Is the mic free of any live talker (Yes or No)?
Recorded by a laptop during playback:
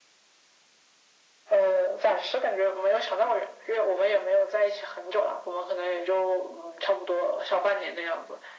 Yes